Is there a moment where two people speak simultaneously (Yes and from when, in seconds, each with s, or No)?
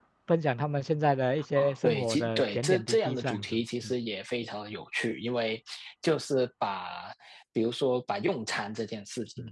Yes, from 1.6 s